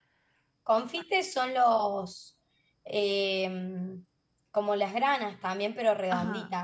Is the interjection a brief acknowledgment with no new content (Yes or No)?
No